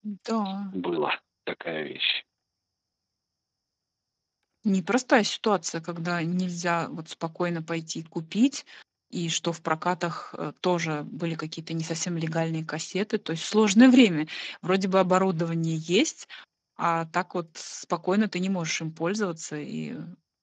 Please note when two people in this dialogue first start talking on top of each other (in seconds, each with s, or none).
none